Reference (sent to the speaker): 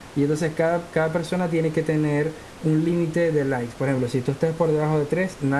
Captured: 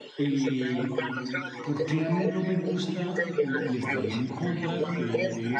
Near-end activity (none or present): present